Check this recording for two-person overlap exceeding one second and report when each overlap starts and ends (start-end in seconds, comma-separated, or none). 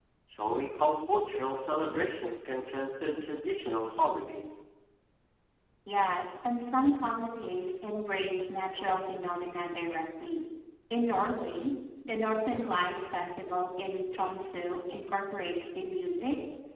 none